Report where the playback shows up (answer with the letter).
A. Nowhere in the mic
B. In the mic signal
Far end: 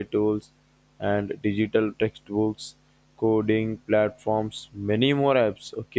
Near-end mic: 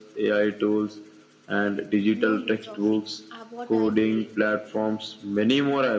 B